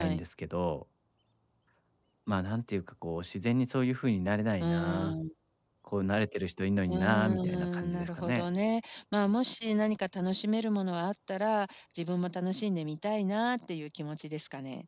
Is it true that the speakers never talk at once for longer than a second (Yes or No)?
No